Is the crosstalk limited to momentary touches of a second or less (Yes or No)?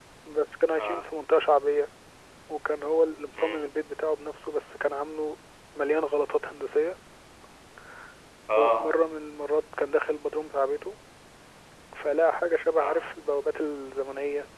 Yes